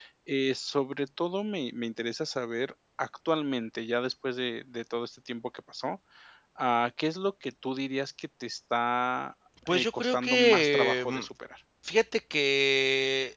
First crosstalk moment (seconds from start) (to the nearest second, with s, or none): 10 s